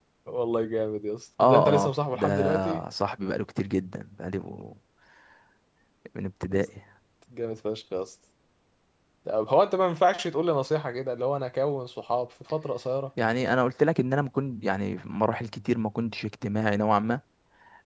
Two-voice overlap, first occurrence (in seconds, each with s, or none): 1.4 s